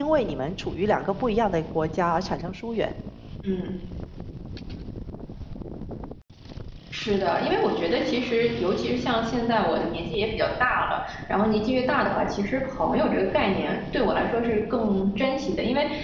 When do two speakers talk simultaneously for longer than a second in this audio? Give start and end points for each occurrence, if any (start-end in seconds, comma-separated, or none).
none